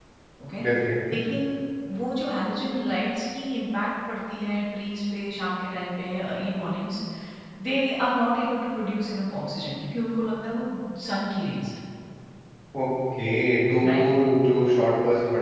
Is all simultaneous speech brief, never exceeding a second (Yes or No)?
Yes